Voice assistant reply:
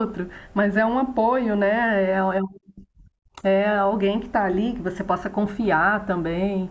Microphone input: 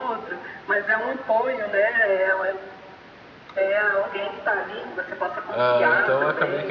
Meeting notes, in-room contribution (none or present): present